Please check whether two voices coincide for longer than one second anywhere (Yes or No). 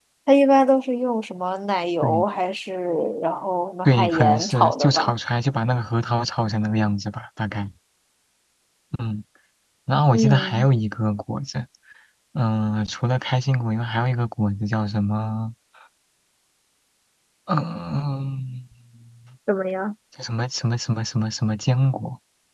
Yes